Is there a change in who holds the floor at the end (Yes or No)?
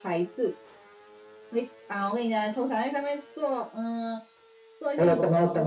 Yes